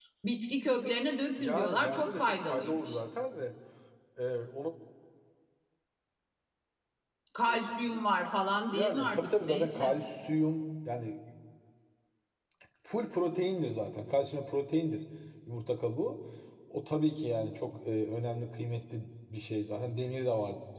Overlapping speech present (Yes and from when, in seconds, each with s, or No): Yes, from 1.4 s